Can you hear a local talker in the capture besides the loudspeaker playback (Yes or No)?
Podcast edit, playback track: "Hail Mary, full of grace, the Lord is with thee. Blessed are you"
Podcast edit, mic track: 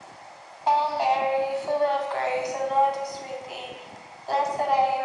No